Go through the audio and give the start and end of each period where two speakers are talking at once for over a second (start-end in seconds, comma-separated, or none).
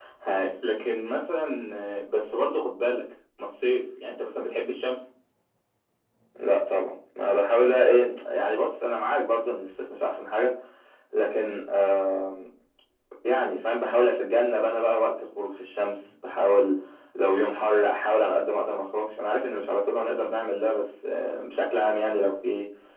none